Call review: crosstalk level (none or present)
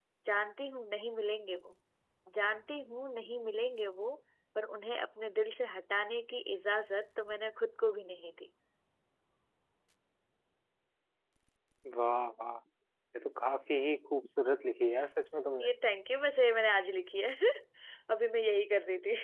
none